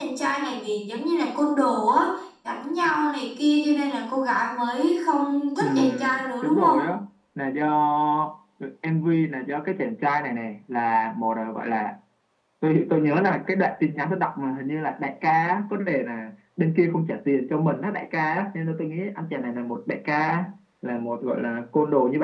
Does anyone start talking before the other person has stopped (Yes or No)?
Yes